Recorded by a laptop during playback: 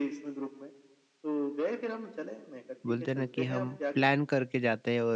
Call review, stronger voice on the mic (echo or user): user